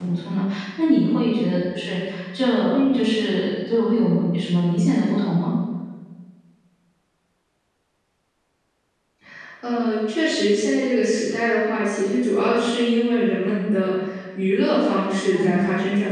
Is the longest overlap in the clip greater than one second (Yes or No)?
No